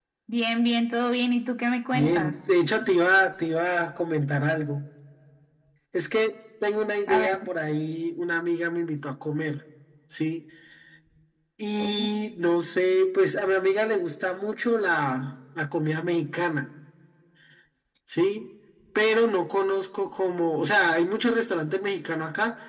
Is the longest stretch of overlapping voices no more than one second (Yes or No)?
Yes